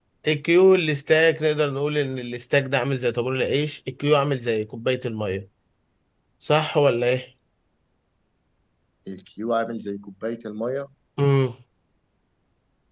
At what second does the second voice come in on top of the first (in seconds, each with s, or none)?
none